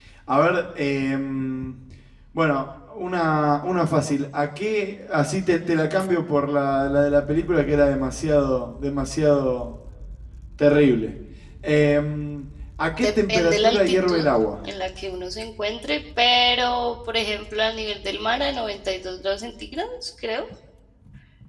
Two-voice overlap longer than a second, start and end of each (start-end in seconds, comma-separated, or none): 13.0-14.3